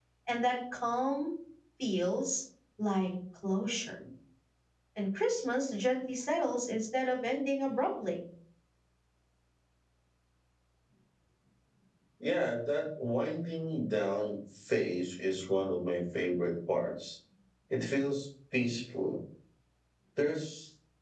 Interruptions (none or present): none